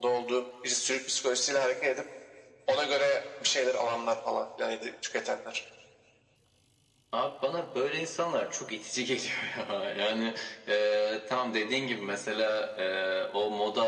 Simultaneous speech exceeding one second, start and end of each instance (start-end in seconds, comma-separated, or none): none